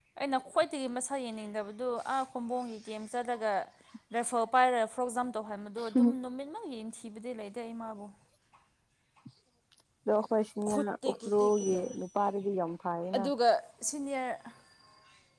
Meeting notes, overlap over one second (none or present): present